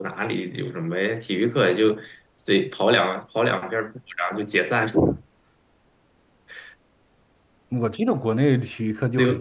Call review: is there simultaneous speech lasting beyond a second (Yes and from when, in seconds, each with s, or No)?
No